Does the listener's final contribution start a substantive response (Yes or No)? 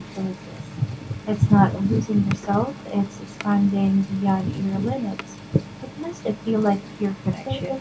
No